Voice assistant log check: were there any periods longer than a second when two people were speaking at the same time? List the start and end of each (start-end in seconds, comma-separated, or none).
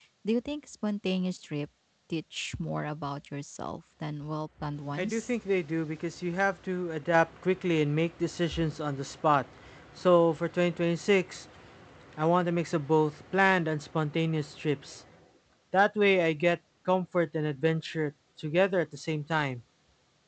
none